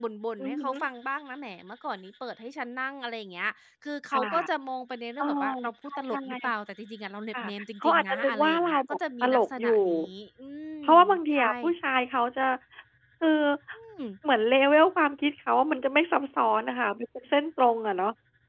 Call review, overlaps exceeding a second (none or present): present